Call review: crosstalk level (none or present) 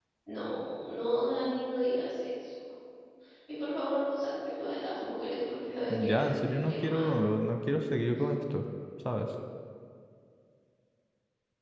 present